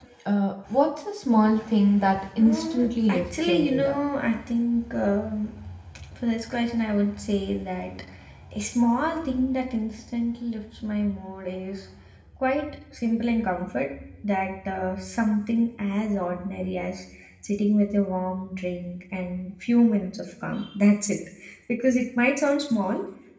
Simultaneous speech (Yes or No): Yes